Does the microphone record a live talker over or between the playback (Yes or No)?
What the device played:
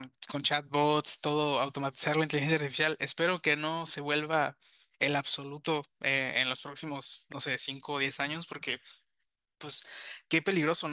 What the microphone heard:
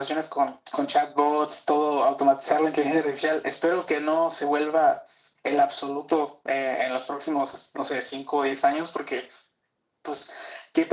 No